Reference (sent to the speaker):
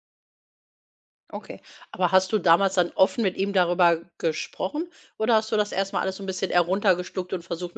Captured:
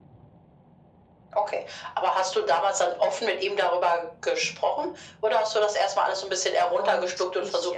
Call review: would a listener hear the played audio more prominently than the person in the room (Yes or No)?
Yes